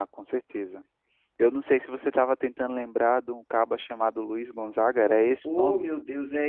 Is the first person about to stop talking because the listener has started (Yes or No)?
Yes